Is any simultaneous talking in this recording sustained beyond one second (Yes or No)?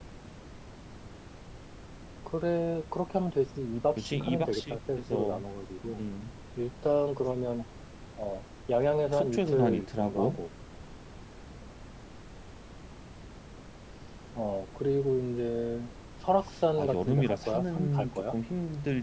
Yes